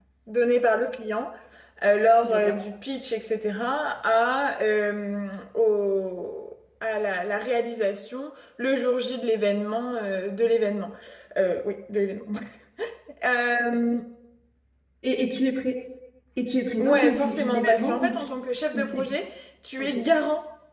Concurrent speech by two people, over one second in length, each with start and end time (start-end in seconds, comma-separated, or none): 16.8-18.3